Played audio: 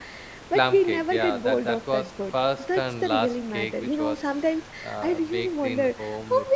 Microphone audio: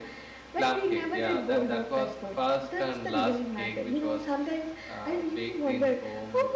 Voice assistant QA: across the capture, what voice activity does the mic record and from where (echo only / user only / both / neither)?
echo only